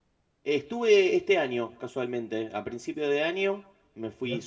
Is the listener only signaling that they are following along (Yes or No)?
Yes